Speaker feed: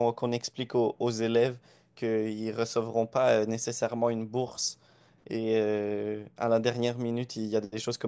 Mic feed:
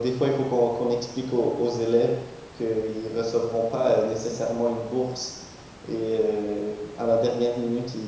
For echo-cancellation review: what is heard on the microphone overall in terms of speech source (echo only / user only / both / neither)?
echo only